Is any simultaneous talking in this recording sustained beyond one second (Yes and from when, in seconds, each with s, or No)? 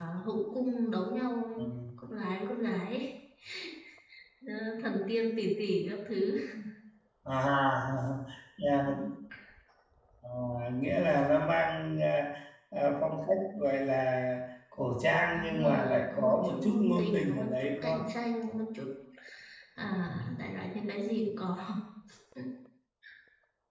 Yes, from 15.3 s